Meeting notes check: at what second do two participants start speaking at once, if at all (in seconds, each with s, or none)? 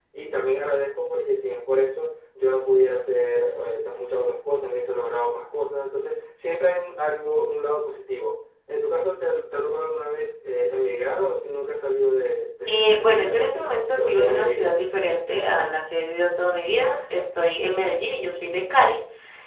12.7 s